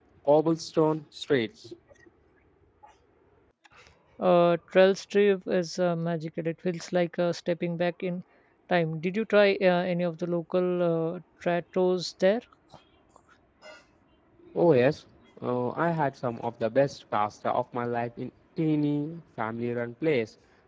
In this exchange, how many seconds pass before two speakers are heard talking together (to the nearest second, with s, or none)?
none